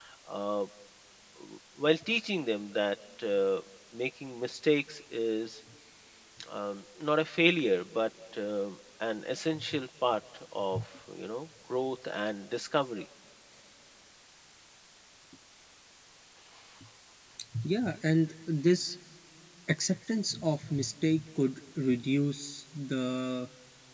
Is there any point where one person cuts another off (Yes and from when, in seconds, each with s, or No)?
No